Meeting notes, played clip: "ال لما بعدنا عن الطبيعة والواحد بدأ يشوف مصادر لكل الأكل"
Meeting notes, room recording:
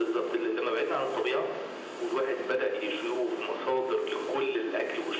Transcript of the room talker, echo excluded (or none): none